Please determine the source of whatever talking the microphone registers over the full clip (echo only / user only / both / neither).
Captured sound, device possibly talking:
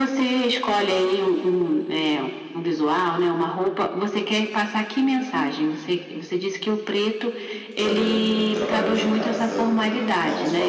both